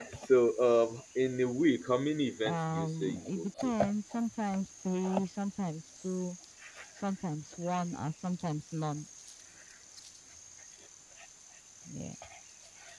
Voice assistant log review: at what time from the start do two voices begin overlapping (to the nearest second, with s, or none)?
2 s